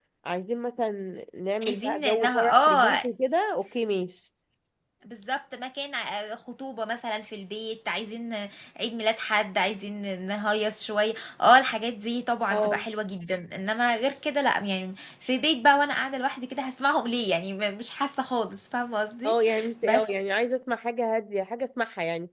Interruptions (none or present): present